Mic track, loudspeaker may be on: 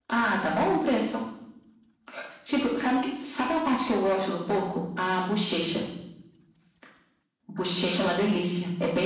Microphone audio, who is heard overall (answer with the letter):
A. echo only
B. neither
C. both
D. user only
A